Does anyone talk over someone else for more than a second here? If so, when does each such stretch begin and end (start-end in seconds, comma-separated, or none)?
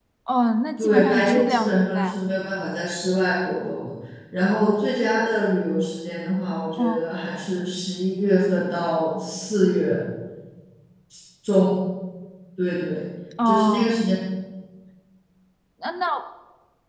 0.8-2.2